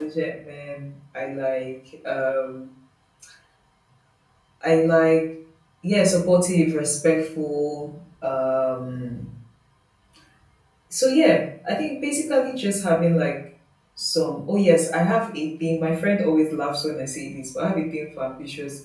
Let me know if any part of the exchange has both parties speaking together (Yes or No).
No